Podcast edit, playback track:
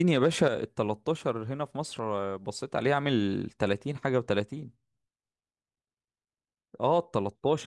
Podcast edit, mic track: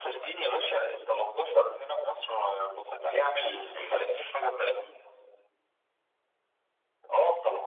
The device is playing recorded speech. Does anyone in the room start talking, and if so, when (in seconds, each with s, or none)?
3.7 s